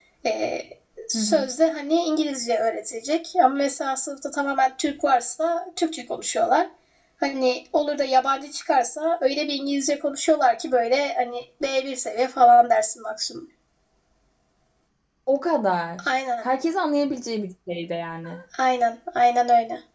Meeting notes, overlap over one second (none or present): none